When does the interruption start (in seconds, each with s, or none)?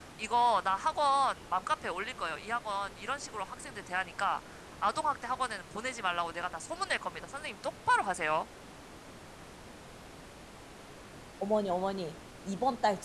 none